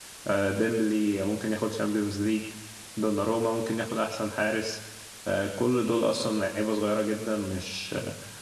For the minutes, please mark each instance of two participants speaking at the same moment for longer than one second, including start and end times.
none

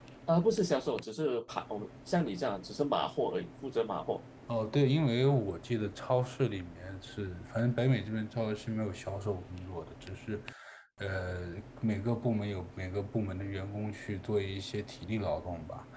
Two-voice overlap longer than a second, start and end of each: none

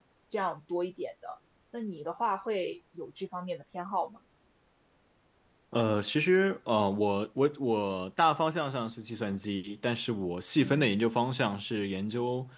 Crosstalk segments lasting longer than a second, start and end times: none

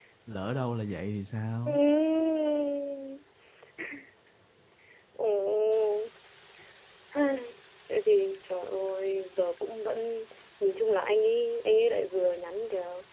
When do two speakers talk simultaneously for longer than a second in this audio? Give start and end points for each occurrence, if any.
none

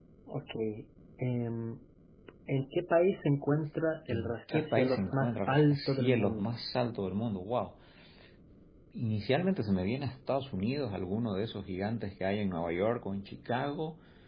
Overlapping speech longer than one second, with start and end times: 4.1-6.5

